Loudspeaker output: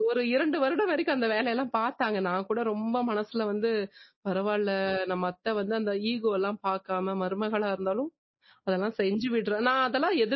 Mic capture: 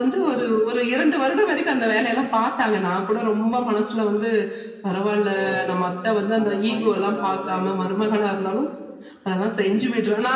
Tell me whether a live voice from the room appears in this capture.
Yes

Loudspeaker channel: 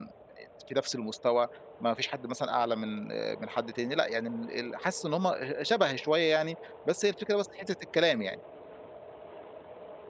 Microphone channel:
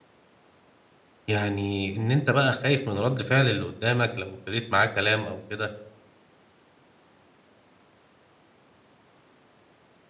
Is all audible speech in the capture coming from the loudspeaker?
No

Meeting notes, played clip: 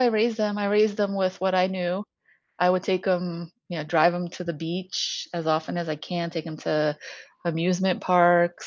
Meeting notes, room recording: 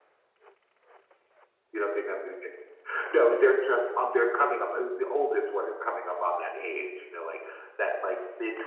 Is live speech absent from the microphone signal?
No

